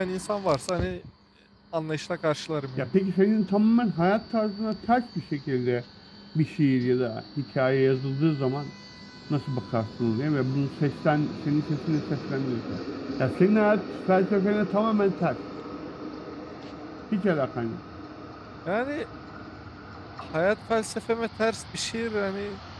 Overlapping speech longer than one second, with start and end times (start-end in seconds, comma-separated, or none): none